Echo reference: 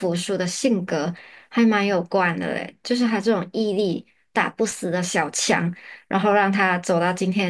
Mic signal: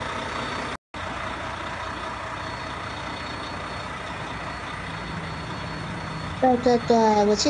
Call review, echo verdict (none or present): none